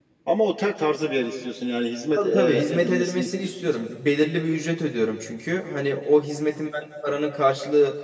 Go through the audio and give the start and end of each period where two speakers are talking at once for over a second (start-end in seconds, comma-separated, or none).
2.2-3.8